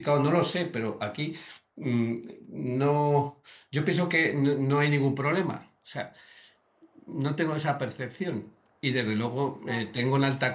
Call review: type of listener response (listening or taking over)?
listening